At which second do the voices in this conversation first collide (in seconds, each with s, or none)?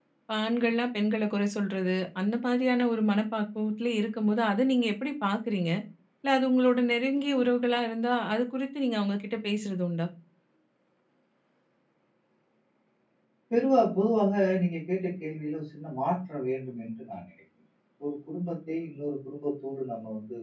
none